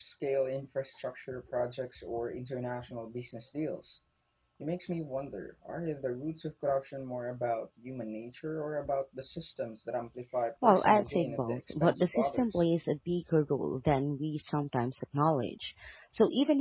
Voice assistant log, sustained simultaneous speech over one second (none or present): present